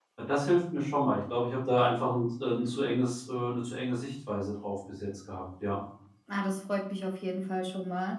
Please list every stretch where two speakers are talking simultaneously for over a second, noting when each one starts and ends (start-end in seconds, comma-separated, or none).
none